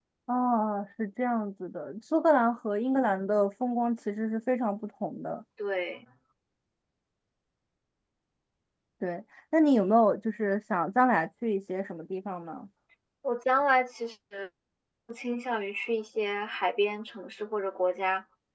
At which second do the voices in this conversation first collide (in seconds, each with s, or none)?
none